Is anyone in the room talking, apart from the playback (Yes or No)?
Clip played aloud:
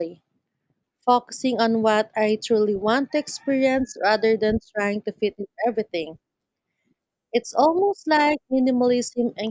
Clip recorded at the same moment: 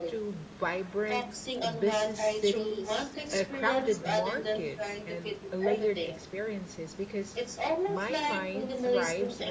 Yes